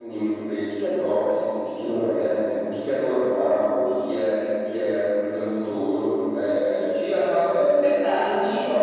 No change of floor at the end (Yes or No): Yes